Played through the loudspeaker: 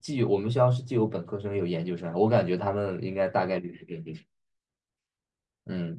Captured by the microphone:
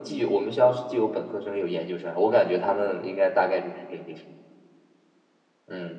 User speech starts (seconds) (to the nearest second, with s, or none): none